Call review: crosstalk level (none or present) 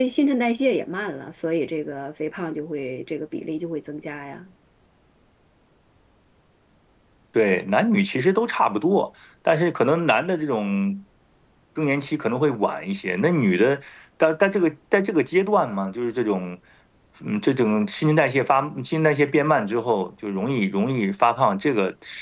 none